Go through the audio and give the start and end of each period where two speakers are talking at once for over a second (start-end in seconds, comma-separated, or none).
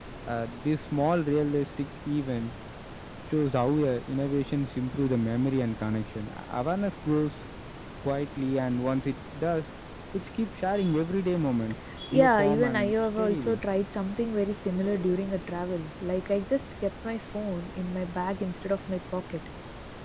12.1-13.6